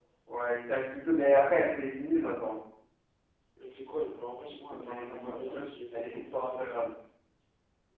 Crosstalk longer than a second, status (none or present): present